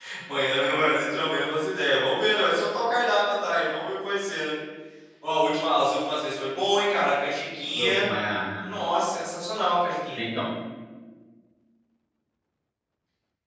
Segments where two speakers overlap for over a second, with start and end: none

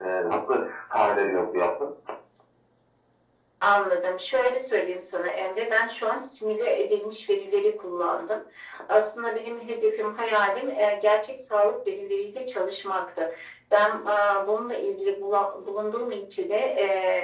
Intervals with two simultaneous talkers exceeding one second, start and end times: none

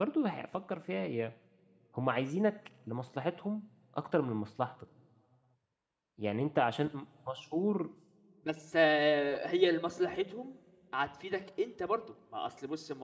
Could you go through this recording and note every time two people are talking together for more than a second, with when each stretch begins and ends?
none

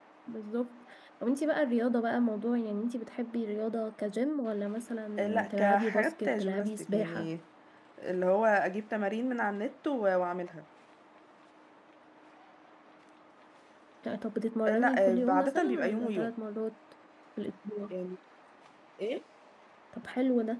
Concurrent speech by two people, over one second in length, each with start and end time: 5.2-7.3, 14.7-16.3

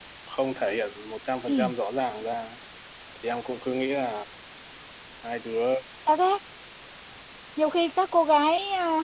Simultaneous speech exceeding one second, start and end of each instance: none

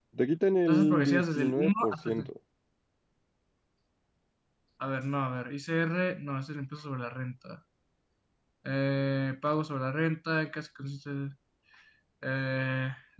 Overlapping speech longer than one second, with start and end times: 0.7-2.3

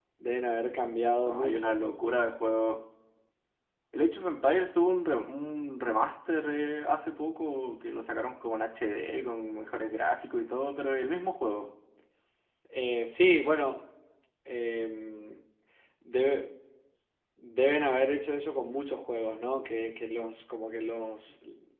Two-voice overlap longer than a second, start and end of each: none

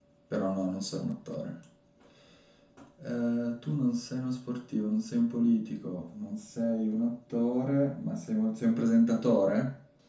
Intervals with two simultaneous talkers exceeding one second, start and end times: none

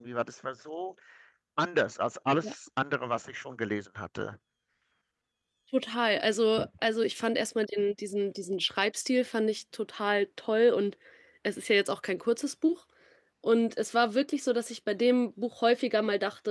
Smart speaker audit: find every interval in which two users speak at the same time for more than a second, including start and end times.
none

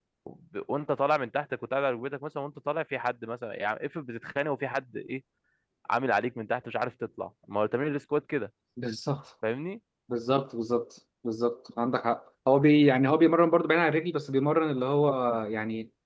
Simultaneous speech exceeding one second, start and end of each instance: none

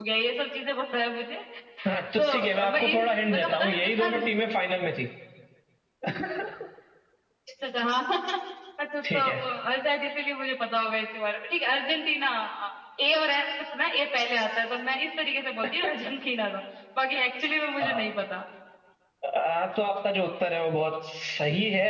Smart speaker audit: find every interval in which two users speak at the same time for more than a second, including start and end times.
2.2-4.1

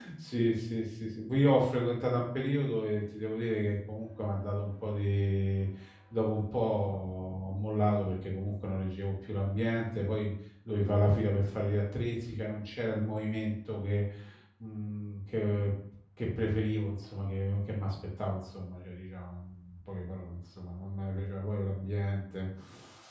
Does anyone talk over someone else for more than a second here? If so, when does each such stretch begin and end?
none

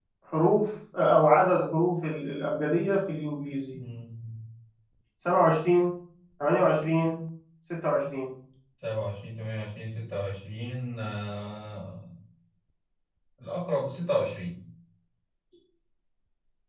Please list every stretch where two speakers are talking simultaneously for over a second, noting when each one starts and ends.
none

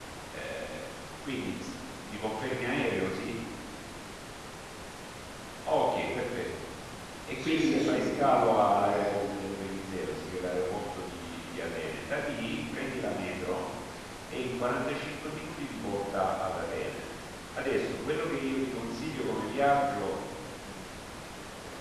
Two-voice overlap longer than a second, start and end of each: 7.4-9.2

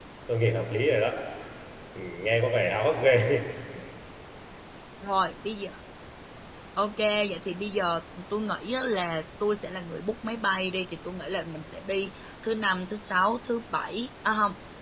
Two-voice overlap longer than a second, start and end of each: none

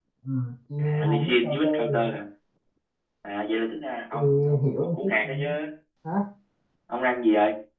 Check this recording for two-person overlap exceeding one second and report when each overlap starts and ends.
0.8-2.1, 4.1-5.5

